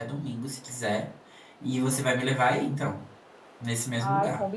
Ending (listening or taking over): taking over